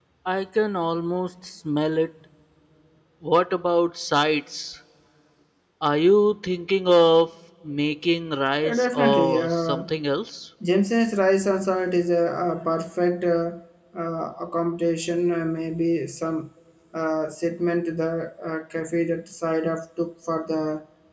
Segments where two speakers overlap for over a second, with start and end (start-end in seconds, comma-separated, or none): 8.6-9.9